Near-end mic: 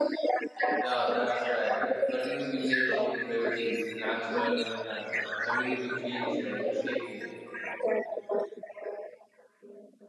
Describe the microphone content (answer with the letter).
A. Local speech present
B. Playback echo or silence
A